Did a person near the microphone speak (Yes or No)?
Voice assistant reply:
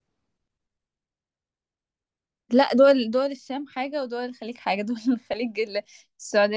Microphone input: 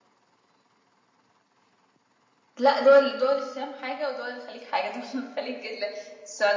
No